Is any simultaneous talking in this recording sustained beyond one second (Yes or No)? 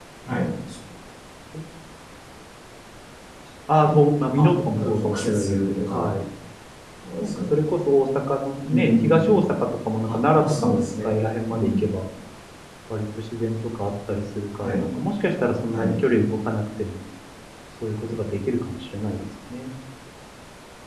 Yes